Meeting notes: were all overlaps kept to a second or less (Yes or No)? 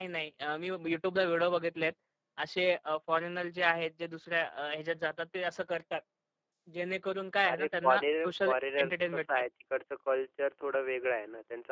No